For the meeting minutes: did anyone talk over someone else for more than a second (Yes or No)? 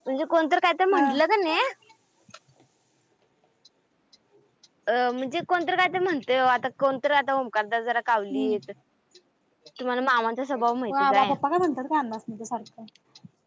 No